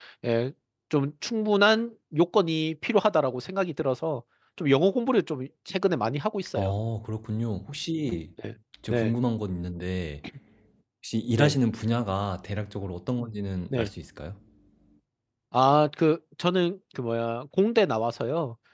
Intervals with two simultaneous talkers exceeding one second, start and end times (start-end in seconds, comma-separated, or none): none